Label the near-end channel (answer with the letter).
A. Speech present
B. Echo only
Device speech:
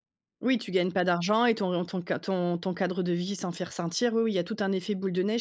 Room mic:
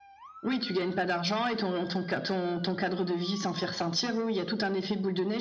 B